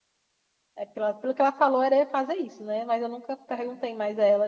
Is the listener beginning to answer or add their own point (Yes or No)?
No